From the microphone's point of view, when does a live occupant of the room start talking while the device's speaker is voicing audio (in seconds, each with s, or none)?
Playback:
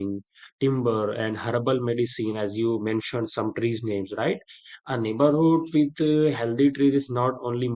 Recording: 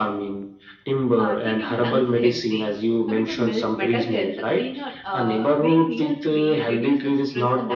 1.2 s